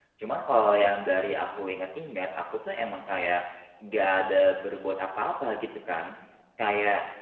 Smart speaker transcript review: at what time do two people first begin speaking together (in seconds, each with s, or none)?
none